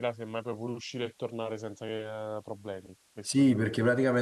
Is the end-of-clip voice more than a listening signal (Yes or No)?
Yes